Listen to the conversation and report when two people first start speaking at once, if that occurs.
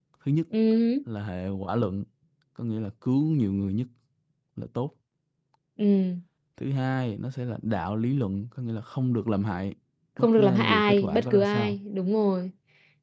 10.2 s

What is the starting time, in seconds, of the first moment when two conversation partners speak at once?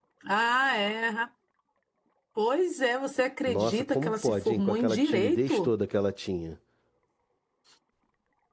3.5 s

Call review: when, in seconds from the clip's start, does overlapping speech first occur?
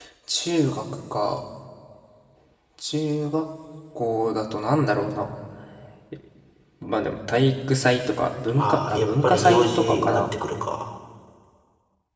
8.6 s

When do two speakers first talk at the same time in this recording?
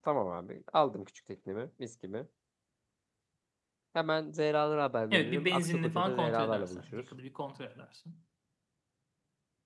5.1 s

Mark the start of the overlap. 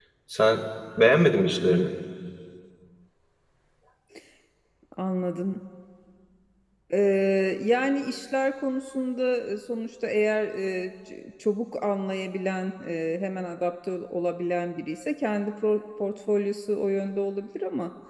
none

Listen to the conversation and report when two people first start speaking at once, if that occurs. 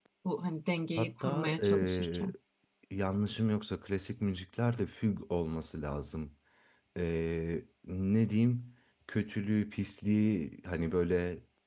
1.0 s

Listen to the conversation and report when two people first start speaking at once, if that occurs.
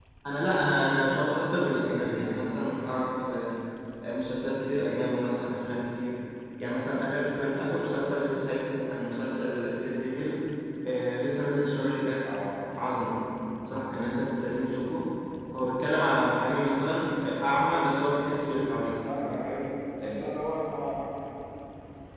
none

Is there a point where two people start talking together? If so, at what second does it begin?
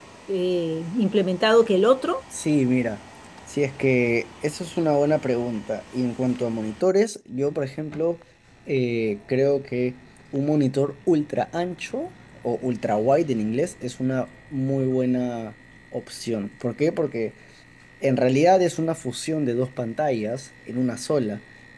none

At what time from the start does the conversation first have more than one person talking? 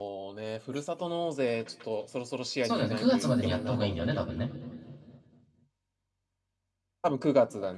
2.6 s

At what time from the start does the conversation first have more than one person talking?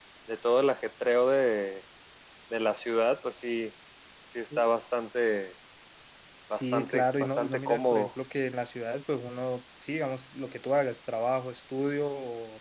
6.5 s

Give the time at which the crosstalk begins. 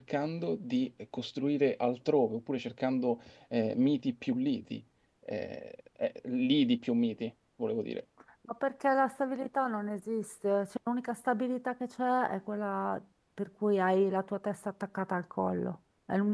none

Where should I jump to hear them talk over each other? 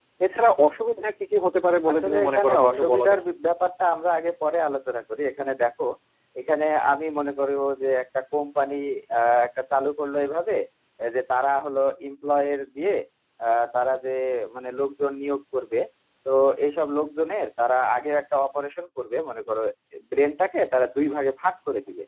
1.9 s

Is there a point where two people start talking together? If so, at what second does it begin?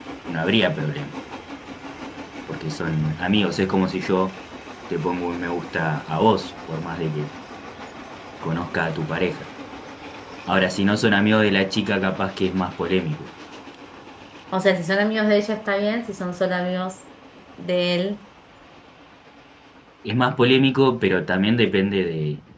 none

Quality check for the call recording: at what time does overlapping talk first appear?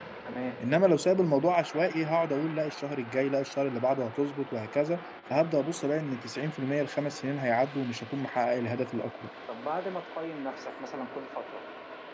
none

